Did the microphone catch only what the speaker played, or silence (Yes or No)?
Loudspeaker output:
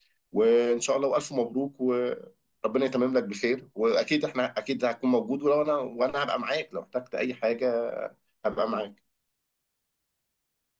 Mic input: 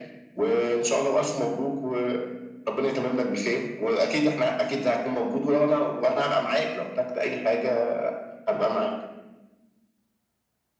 Yes